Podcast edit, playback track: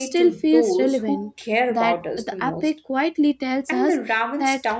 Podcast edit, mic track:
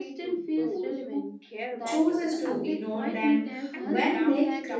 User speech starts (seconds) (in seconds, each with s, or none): 1.8 s